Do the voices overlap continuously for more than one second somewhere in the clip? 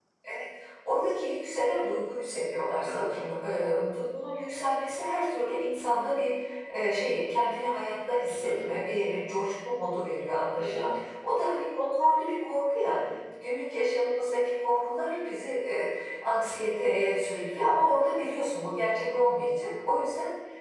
No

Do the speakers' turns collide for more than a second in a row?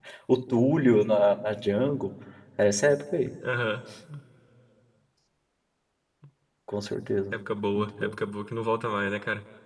No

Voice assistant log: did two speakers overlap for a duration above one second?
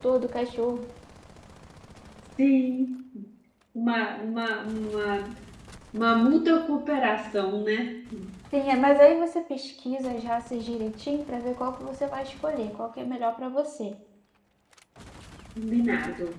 No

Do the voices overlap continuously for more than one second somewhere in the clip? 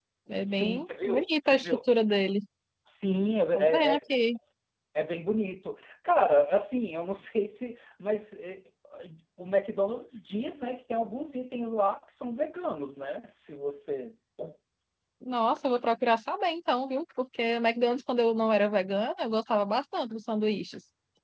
Yes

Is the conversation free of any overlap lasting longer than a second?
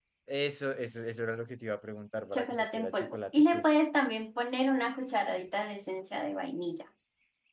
No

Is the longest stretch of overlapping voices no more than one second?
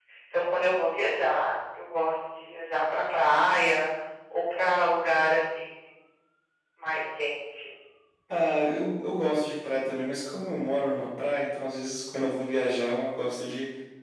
Yes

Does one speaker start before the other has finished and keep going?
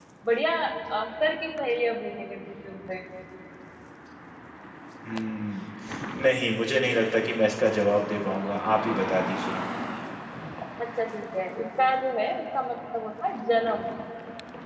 No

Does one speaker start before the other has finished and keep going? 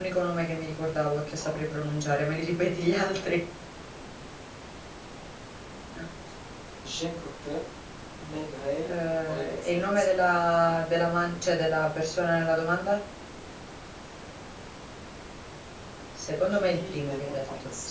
Yes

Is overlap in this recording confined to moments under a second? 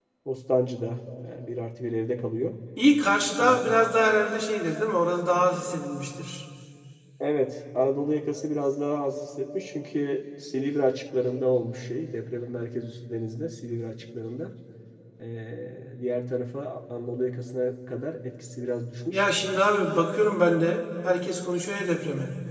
Yes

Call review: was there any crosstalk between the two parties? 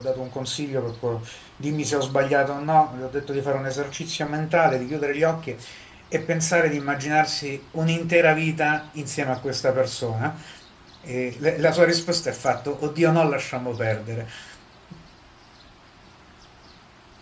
No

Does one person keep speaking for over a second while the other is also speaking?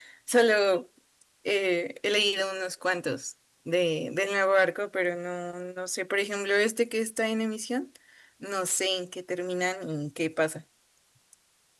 No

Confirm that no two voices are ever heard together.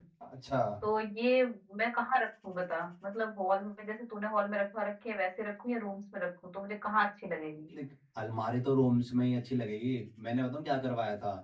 Yes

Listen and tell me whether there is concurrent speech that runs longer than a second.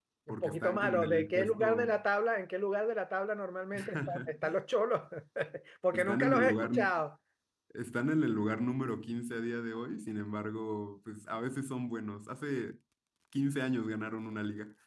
Yes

